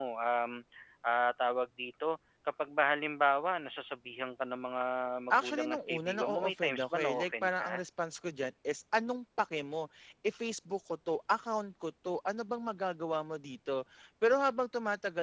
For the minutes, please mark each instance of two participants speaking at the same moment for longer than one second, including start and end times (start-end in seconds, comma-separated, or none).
5.3-7.8